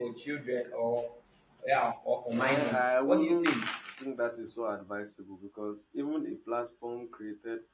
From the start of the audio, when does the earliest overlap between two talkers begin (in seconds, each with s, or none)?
2.3 s